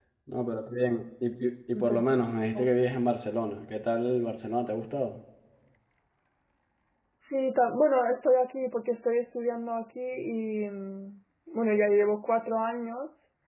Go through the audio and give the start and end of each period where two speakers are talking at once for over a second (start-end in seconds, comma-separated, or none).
none